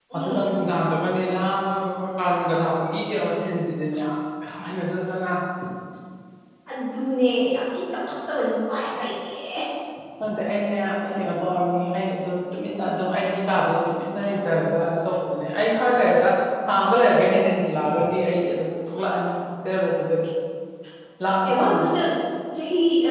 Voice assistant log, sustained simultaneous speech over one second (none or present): none